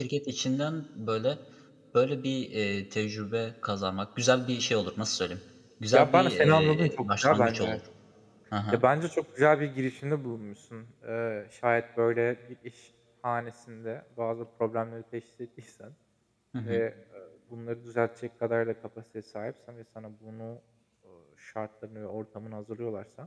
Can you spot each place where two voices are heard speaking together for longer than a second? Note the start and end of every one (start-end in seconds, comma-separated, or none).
5.9-7.8